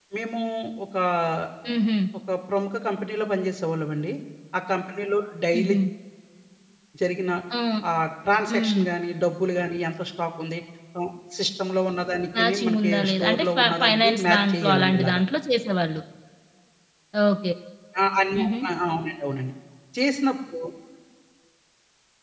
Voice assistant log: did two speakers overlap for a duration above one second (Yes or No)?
Yes